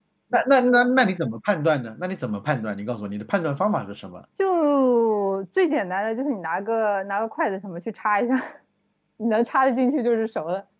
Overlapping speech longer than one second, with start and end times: none

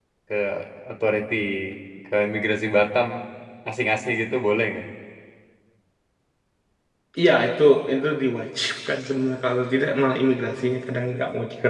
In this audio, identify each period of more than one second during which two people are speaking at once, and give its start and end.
none

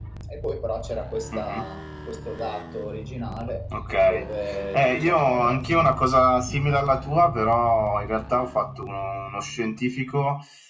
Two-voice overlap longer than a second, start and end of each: 4.7-5.9

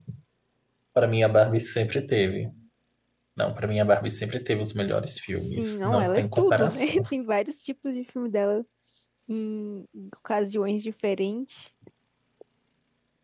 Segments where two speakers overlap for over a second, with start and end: 5.3-7.0

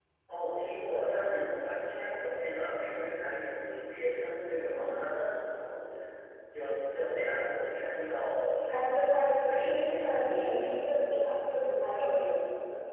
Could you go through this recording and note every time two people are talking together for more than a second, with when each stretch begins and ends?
8.7-10.1

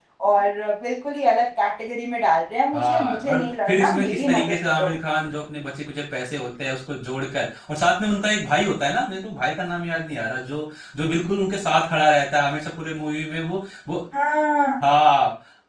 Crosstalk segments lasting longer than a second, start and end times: 2.7-4.9

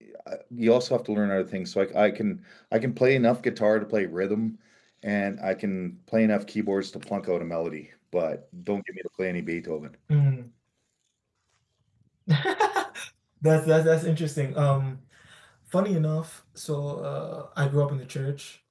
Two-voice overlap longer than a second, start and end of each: none

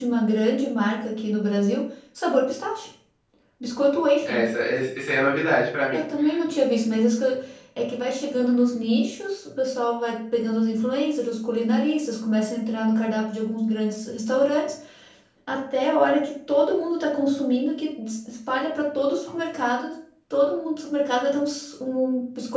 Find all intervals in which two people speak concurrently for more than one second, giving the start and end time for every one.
none

